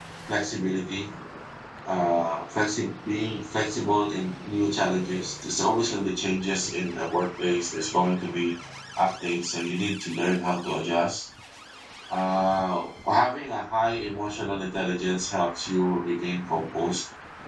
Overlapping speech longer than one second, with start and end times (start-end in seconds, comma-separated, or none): none